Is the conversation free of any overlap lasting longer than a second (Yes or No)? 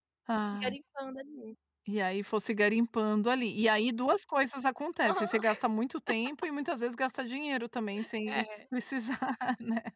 Yes